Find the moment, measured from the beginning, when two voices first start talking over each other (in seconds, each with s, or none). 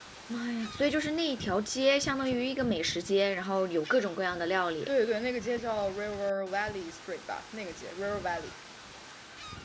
none